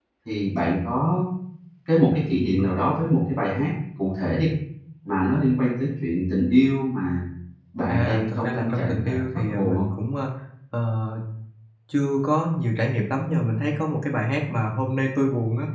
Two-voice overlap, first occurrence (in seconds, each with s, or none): 7.9 s